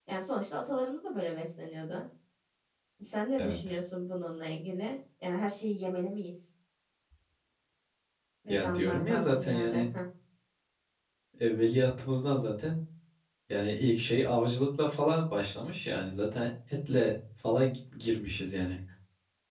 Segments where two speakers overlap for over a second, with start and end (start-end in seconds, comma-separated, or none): 8.5-9.8